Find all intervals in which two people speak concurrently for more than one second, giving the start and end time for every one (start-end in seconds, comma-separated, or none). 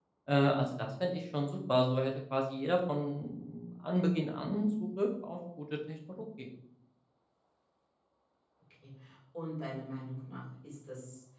none